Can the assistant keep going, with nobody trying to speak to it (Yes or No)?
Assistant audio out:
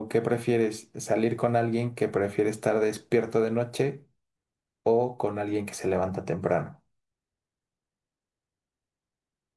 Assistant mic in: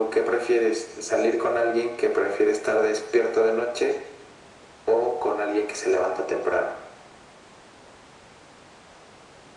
Yes